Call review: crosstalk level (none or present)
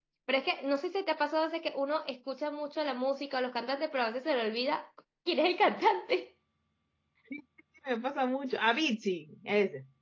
none